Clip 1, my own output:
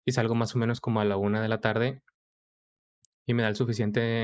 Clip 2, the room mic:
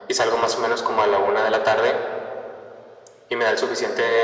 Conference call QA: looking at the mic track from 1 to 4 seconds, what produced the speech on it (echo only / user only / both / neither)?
echo only